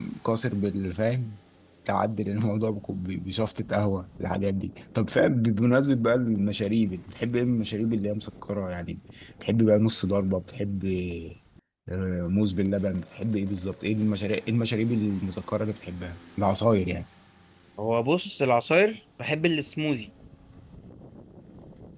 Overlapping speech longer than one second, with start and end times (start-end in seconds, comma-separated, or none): none